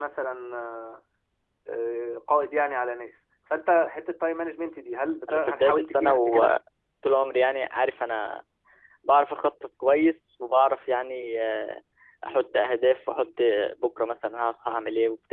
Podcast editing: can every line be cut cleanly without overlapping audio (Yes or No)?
No